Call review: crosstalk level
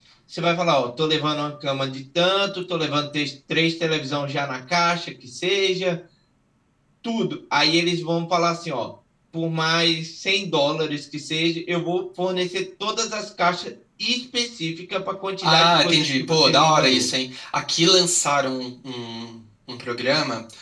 present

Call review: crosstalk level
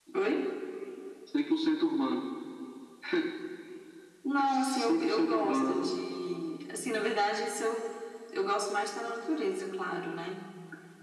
present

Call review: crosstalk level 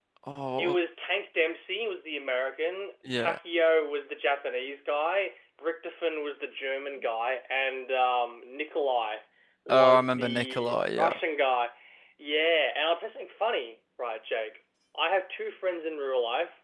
present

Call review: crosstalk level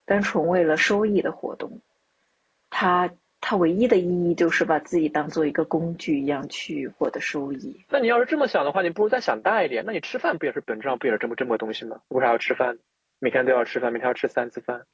none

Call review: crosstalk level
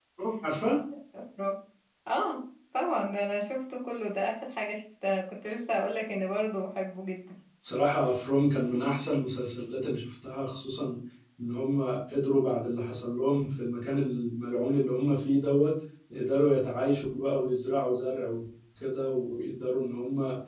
none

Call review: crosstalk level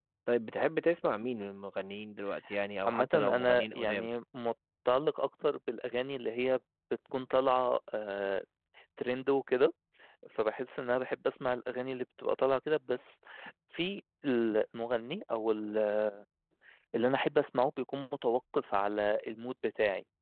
present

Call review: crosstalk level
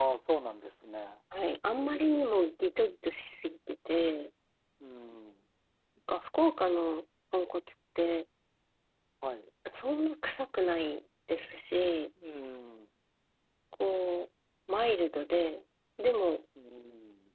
none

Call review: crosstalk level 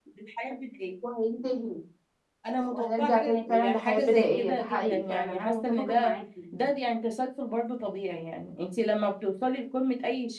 present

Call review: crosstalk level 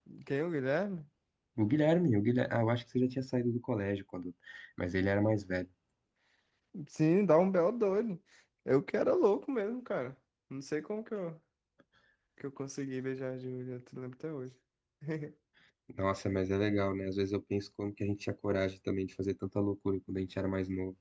none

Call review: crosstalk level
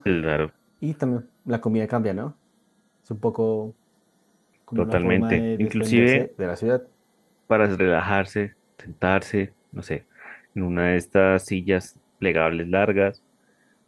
present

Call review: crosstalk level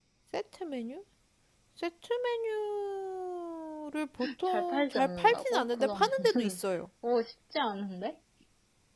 present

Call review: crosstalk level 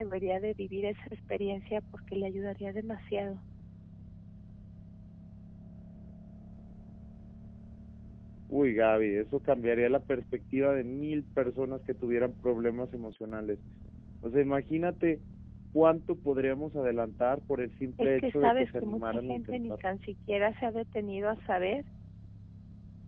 present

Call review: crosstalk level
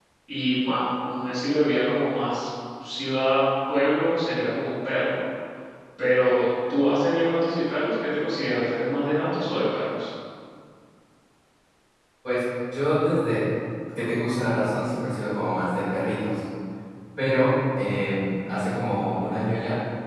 none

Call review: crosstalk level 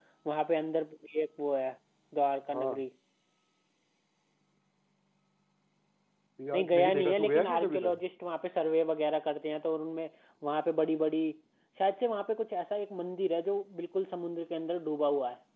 present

